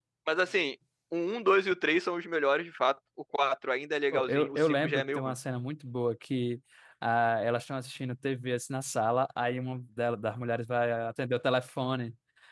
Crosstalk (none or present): present